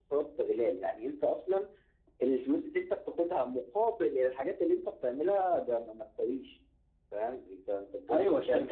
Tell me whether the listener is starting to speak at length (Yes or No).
Yes